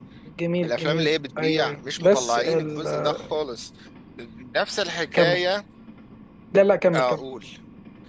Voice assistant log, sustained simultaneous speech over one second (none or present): present